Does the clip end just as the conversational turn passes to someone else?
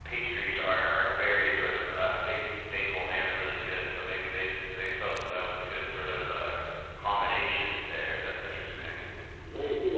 Yes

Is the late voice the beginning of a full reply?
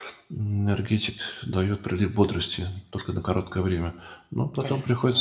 No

